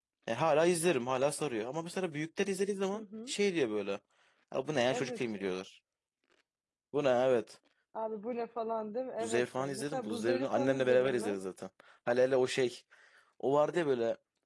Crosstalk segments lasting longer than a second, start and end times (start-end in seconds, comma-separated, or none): 9.2-11.4